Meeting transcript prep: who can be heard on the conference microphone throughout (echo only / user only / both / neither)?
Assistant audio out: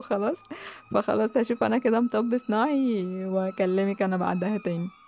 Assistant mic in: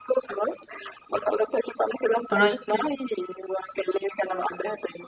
both